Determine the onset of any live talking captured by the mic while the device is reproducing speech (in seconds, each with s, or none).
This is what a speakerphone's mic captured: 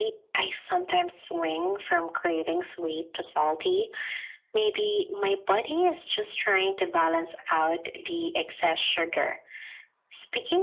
none